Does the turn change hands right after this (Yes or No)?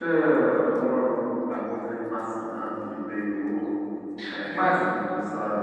No